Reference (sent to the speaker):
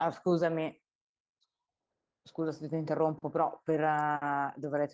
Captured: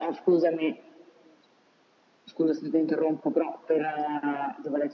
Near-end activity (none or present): none